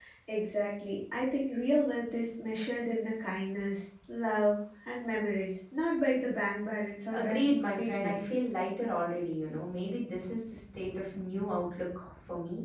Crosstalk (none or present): present